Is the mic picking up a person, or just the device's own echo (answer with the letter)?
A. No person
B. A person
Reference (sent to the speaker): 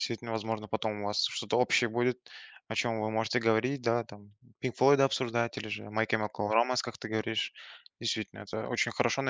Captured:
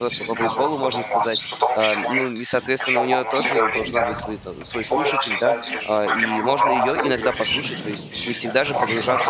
B